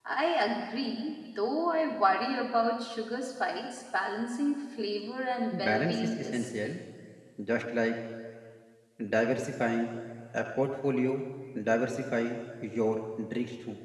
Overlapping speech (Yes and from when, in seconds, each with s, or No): Yes, from 5.5 s